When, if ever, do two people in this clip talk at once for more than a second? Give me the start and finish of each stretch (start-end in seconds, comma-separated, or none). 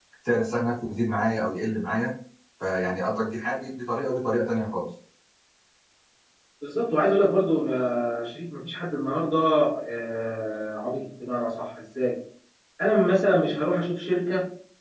none